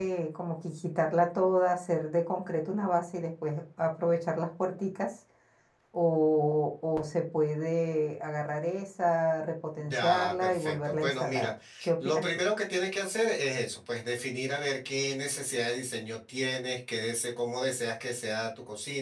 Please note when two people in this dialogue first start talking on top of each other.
10 s

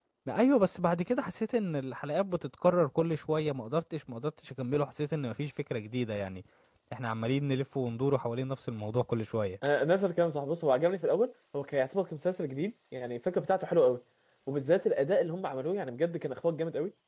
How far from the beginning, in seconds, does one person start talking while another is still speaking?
none

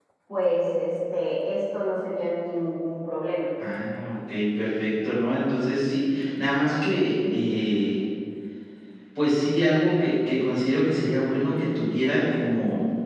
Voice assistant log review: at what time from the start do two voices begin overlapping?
none

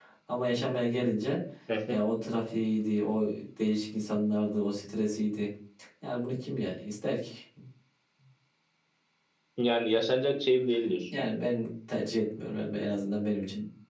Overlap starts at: none

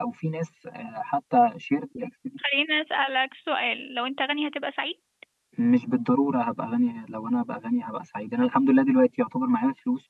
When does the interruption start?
none

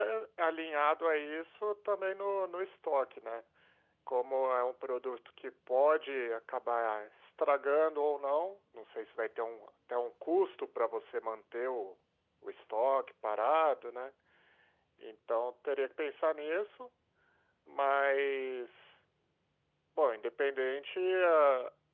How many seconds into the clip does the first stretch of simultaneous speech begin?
none

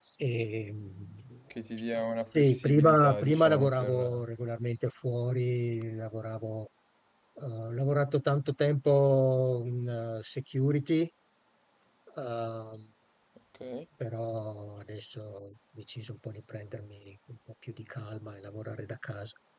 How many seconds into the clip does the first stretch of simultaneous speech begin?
2 s

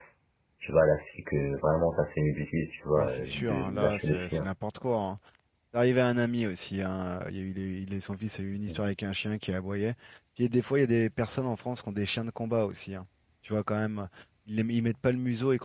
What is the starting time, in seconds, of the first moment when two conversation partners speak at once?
3 s

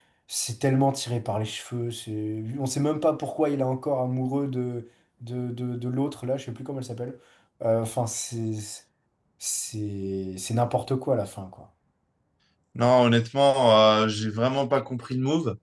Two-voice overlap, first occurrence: none

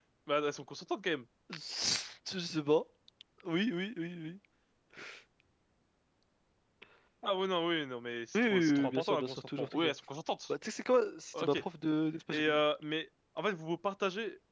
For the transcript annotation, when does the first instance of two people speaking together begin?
8 s

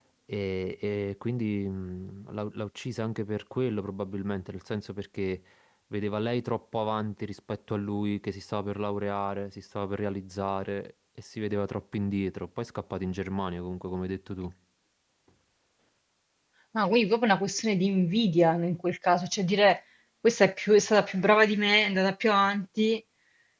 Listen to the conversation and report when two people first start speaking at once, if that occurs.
none

